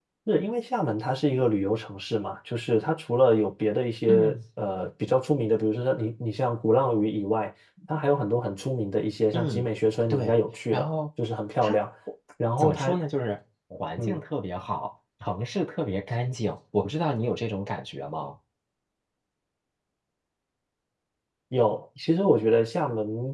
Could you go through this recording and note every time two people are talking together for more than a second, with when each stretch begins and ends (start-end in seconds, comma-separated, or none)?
none